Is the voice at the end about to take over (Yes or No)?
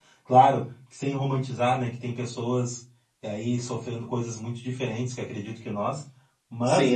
Yes